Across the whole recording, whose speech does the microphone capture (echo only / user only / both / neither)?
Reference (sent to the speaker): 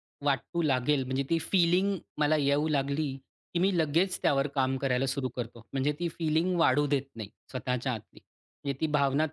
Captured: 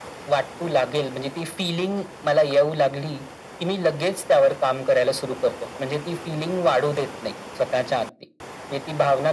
echo only